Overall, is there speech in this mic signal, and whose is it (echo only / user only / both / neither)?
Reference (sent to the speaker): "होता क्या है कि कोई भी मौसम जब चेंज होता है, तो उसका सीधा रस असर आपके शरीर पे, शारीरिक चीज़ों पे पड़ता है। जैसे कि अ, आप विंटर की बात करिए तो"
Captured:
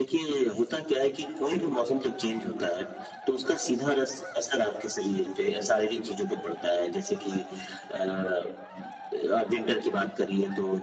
echo only